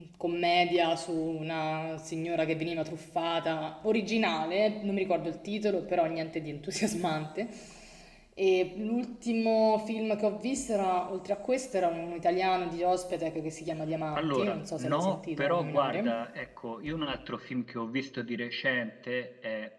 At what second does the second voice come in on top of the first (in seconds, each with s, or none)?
14.2 s